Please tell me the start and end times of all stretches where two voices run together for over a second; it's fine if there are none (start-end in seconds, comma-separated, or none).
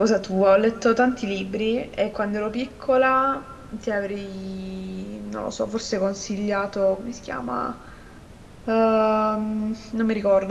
none